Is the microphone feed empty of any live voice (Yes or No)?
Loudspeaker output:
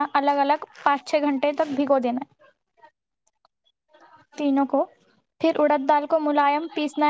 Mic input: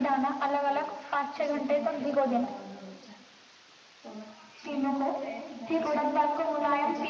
No